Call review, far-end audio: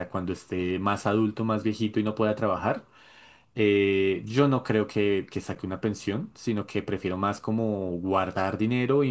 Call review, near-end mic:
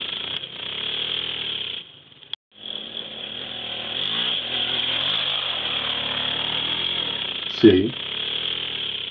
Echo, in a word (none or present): none